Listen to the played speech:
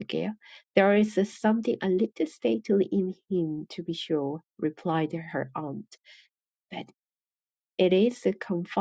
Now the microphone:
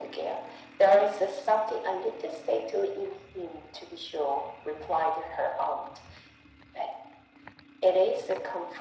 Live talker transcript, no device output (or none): none